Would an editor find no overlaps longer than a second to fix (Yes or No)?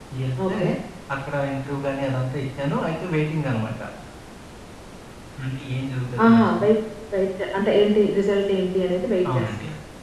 Yes